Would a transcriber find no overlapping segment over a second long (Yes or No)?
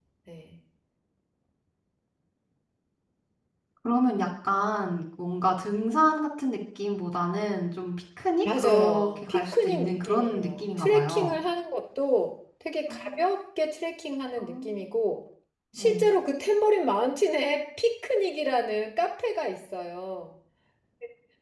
No